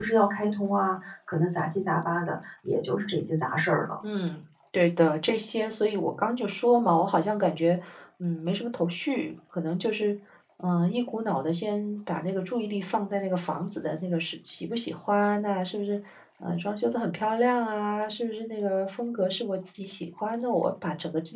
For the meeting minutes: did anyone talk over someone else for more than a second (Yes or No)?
No